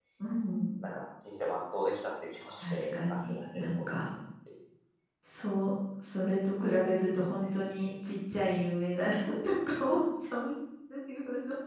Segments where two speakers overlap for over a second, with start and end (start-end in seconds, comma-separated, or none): 2.6-3.9